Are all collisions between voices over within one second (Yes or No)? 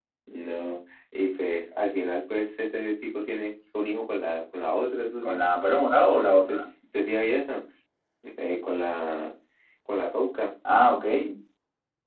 Yes